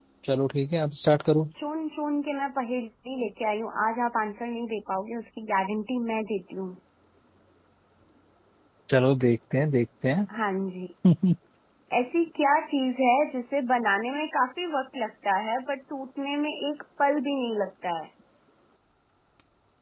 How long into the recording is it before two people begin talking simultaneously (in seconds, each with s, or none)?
none